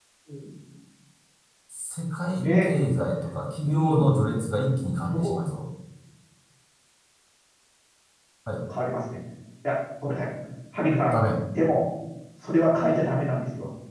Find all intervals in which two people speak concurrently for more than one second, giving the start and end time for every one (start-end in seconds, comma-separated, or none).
none